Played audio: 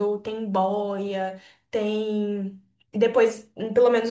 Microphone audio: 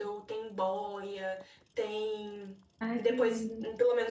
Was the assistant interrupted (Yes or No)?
Yes